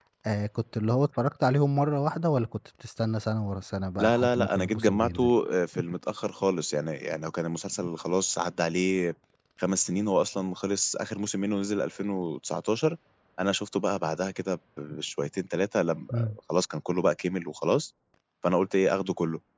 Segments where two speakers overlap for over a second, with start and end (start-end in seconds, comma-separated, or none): 4.0-5.3